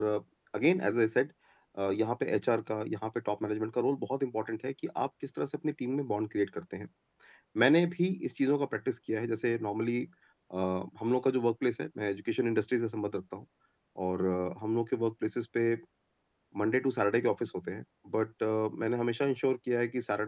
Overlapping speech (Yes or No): No